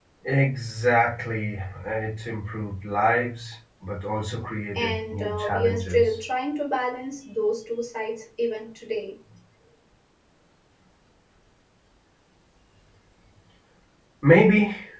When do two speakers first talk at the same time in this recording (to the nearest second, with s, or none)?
5 s